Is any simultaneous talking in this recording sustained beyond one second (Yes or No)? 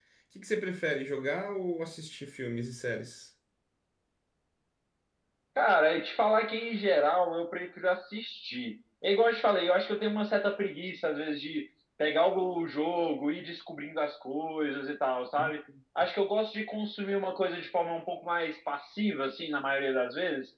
No